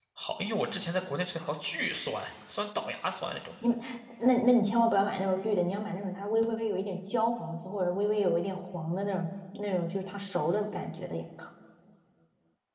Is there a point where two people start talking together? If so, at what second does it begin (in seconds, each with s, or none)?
none